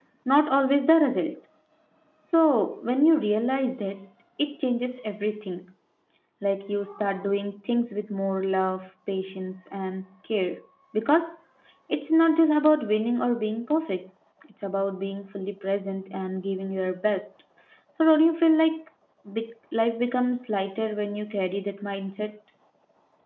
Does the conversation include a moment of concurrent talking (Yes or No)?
No